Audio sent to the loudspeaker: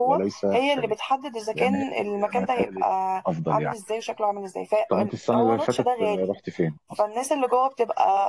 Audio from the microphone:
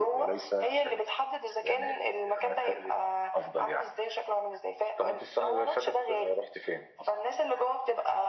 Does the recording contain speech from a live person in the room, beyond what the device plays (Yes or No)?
No